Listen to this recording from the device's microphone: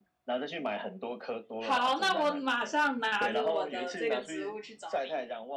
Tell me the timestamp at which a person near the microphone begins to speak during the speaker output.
1.6 s

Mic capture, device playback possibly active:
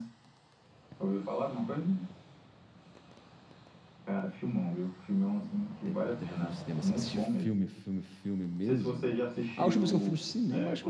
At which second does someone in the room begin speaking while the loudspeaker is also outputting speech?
5.8 s

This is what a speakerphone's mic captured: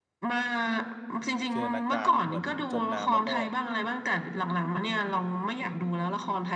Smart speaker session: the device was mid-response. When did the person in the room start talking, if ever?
1.5 s

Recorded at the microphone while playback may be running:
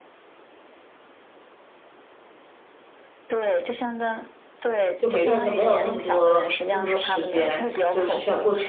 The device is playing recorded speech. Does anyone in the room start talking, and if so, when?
5.0 s

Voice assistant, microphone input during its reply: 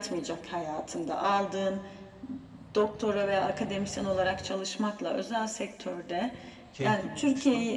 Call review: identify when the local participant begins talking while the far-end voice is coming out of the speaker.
6.7 s

